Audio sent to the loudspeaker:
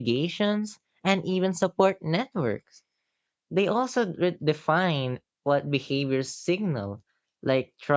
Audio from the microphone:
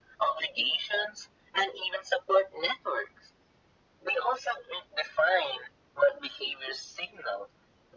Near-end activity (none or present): none